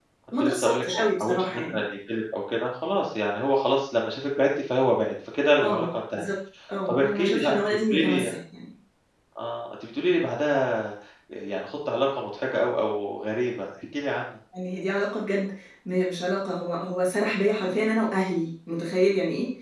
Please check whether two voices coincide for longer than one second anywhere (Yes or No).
Yes